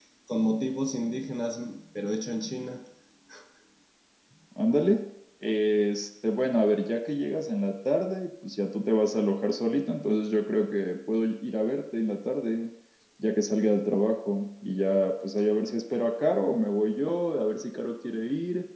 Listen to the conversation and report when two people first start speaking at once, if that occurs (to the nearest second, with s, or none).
none